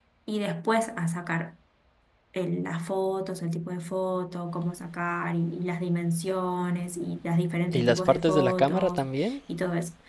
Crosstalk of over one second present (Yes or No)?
Yes